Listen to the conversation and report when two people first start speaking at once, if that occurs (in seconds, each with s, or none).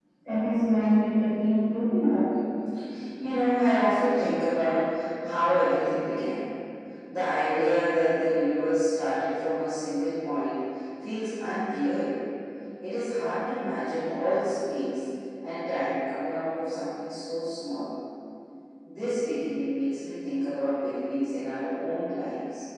none